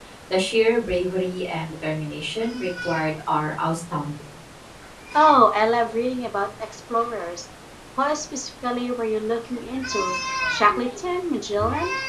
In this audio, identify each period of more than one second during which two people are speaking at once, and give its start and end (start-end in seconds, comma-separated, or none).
none